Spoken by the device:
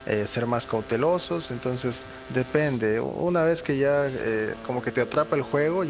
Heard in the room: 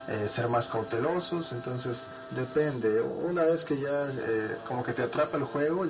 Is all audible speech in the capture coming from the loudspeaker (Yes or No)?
Yes